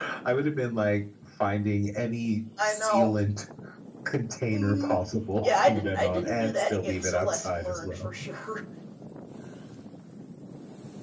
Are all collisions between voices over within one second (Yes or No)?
No